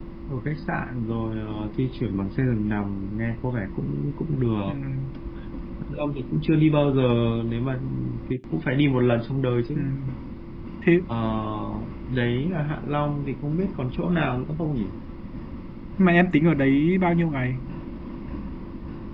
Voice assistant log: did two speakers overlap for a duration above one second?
No

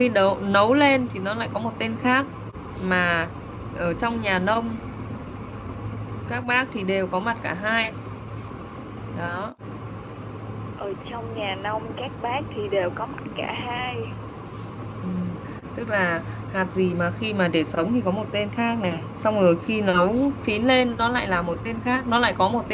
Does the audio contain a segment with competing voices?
No

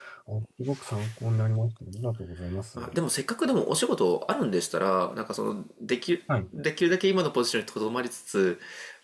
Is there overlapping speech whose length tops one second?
No

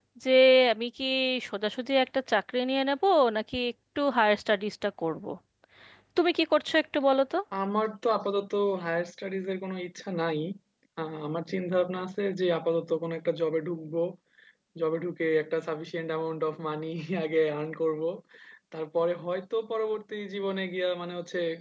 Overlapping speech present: No

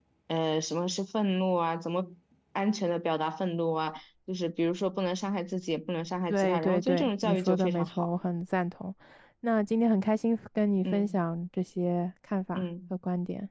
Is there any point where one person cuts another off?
Yes, from 6.3 s

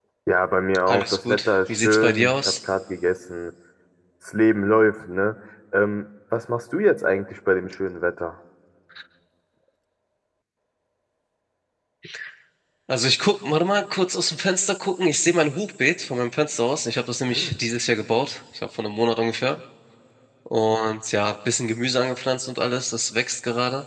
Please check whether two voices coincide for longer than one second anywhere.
Yes, from 0.9 s

